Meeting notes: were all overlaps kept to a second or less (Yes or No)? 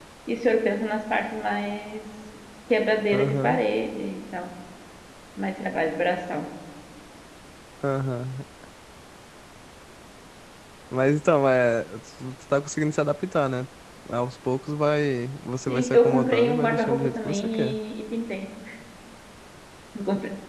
No